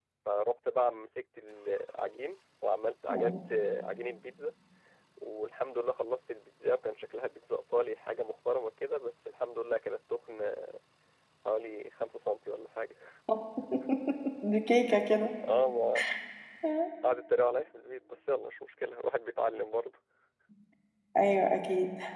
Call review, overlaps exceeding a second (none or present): none